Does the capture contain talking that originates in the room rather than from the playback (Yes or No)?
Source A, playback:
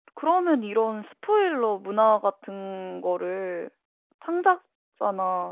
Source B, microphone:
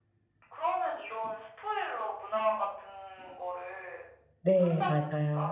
Yes